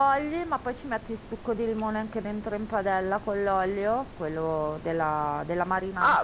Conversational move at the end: taking over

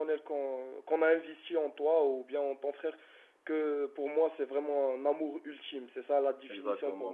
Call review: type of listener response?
taking over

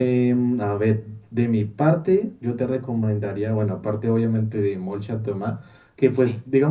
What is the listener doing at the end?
listening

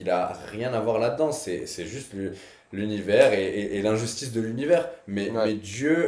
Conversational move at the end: listening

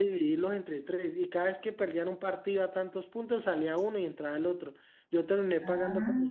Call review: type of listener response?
listening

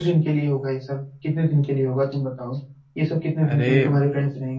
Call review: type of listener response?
listening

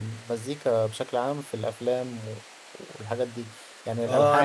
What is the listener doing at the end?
taking over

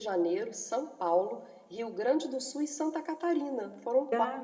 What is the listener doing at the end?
taking over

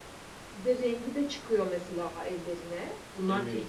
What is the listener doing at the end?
taking over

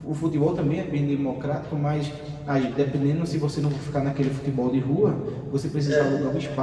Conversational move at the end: listening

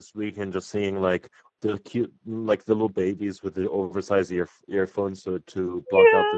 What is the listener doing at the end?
taking over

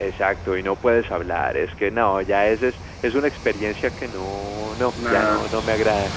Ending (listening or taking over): taking over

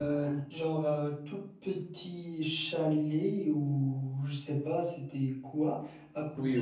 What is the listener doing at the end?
taking over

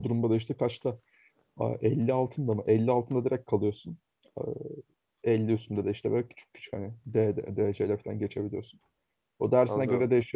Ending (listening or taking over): listening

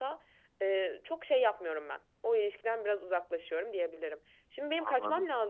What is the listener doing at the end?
listening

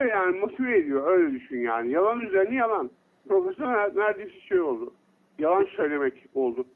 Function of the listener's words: listening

